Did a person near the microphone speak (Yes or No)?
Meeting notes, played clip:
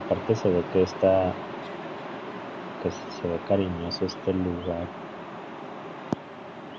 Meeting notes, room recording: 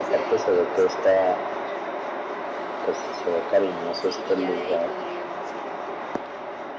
Yes